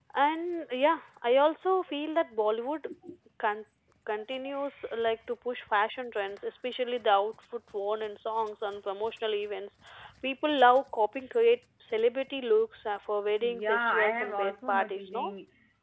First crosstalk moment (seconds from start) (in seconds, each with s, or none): 13.4 s